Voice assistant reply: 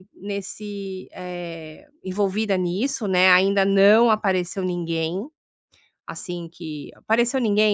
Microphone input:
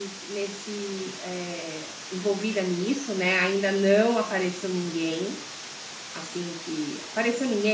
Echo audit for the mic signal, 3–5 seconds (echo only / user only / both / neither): echo only